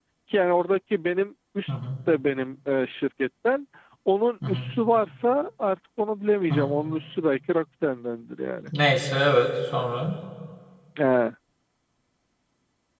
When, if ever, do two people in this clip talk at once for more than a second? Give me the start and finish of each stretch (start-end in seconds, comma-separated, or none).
none